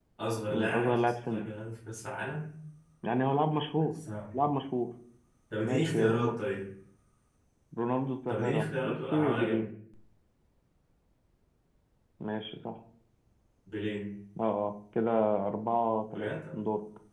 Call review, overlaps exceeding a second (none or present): present